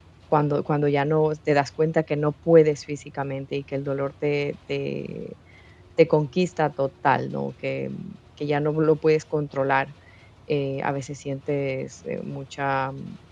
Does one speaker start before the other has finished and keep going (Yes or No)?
No